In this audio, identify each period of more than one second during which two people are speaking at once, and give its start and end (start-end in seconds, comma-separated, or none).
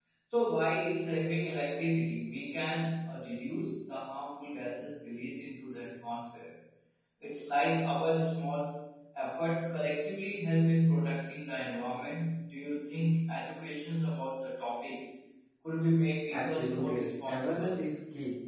16.3-17.8